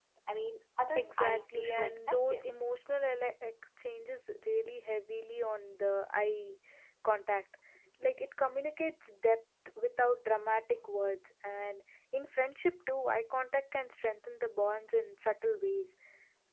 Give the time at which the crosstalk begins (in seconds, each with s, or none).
0.9 s